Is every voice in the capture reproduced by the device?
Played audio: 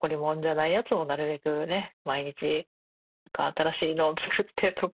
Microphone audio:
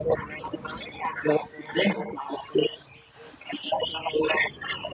Yes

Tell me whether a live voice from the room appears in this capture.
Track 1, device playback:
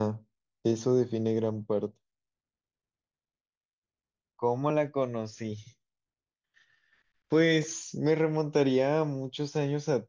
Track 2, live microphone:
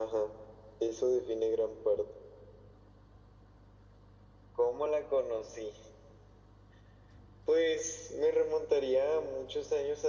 No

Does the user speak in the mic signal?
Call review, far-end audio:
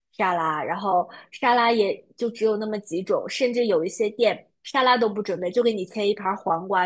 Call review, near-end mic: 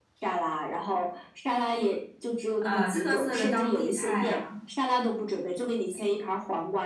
Yes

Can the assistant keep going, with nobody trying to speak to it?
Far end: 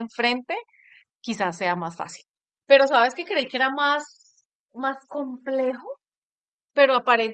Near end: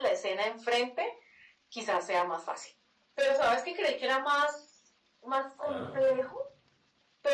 No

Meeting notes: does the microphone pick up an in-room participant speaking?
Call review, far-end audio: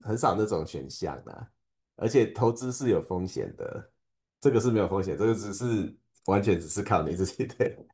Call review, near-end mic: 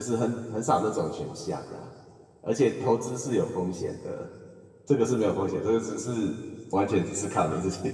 No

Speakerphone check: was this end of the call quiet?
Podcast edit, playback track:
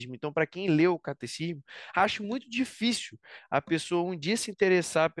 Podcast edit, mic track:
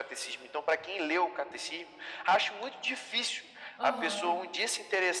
No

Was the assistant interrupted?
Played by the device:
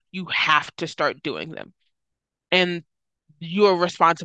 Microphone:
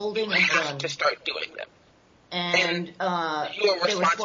Yes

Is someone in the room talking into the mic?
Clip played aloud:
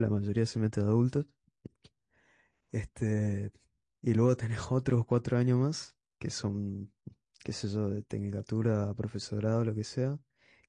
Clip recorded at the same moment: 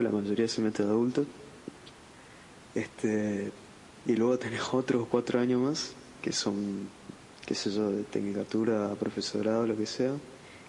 No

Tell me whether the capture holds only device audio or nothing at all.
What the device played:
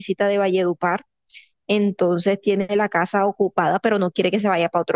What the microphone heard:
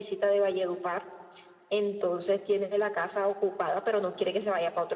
Yes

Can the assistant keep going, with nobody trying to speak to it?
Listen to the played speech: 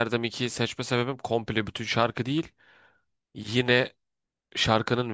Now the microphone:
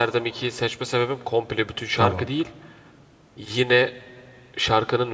No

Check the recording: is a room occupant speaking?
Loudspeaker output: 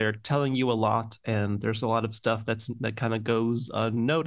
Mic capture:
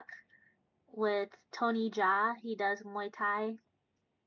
Yes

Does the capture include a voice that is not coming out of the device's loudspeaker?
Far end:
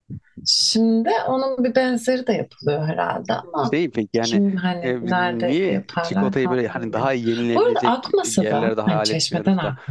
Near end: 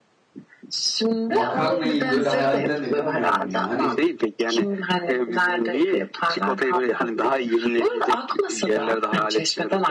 Yes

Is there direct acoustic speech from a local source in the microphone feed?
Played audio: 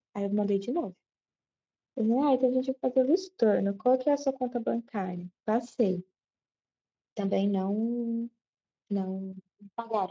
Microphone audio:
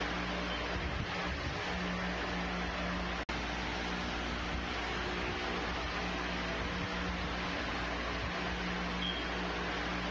No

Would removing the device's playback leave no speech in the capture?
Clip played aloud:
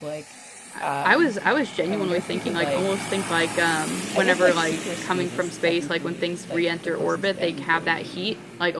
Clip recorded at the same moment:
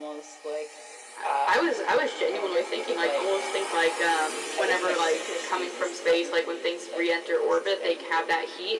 Yes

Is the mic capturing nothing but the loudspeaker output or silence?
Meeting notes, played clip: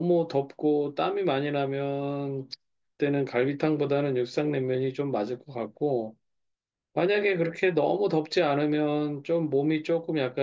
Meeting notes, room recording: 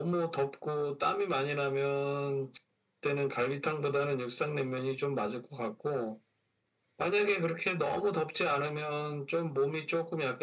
Yes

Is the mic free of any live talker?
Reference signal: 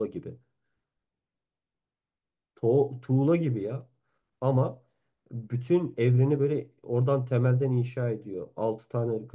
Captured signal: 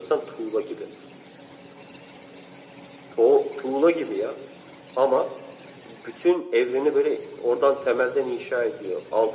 Yes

